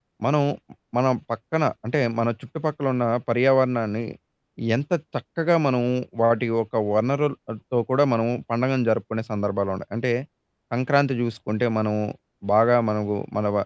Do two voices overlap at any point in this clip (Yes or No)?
No